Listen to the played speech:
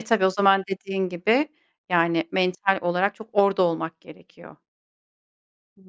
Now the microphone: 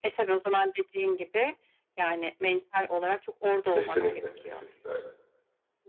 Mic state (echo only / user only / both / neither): both